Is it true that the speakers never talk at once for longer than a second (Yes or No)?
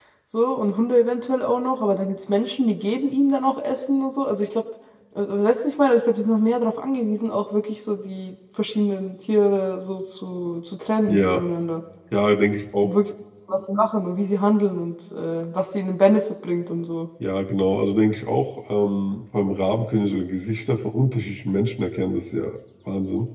Yes